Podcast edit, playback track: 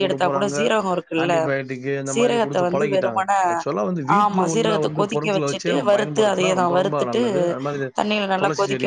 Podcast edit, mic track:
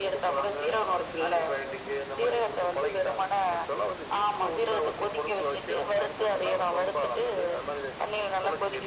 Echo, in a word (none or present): present